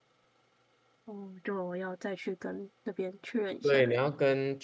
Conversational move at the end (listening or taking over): taking over